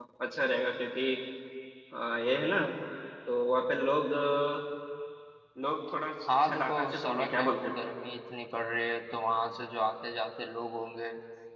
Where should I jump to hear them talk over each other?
6 s

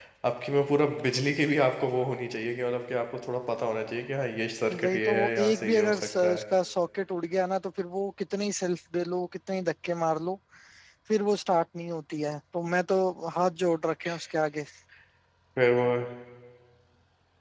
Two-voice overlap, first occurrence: 5 s

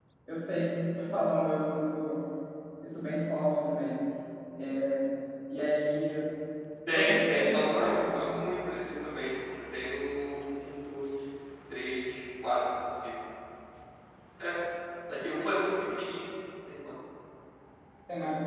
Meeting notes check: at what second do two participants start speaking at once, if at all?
7 s

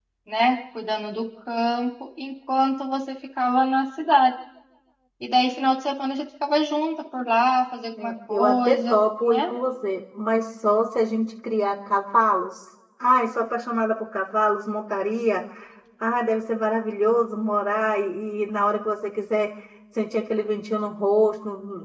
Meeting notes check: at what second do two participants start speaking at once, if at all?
8 s

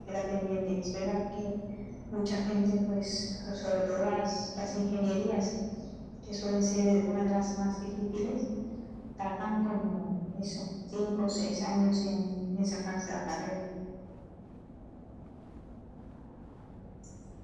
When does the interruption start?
none

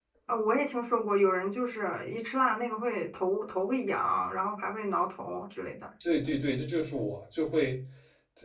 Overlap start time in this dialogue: none

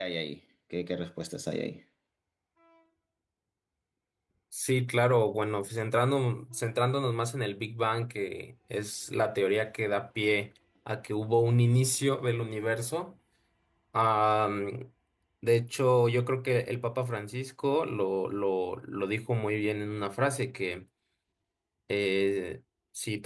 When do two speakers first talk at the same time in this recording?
none

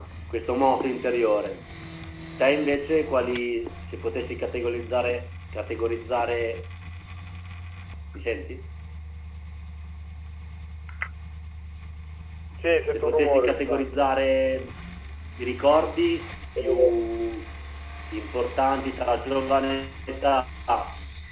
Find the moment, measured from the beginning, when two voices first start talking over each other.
13 s

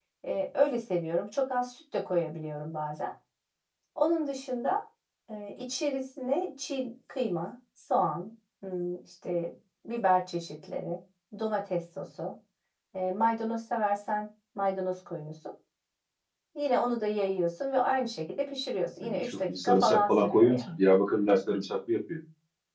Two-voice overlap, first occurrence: 19 s

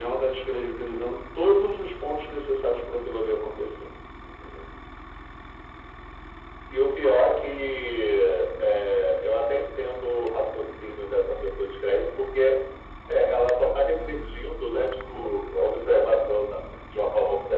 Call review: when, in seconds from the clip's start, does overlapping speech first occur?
none

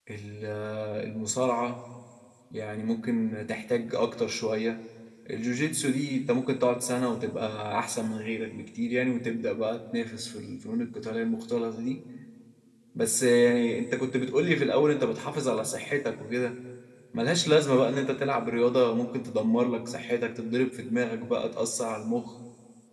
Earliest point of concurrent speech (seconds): none

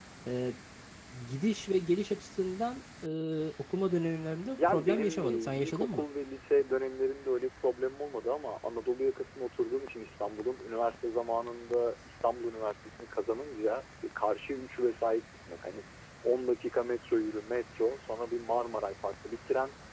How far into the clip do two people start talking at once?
5 s

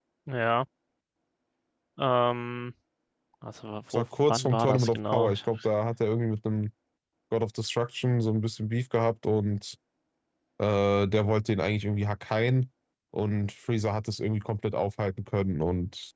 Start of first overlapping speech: 4 s

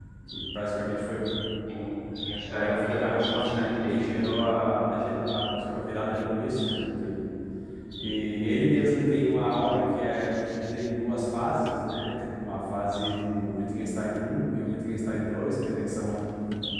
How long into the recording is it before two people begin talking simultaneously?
2 s

